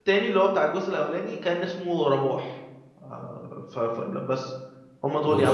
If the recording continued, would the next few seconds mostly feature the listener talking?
Yes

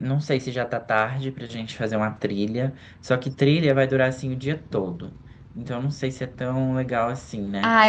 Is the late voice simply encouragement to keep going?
No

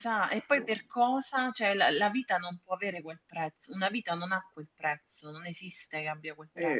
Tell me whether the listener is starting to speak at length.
Yes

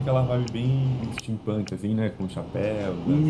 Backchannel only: No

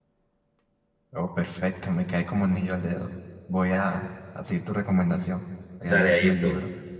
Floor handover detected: Yes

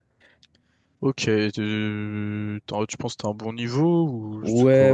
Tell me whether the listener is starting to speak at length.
Yes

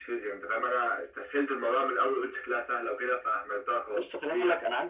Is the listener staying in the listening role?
No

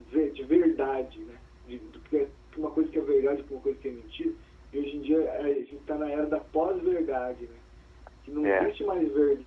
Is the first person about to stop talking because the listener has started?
No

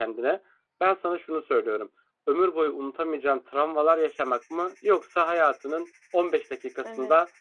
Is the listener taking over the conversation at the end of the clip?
No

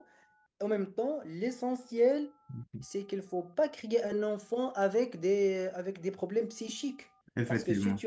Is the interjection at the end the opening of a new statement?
No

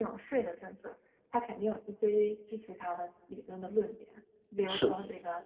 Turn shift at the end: No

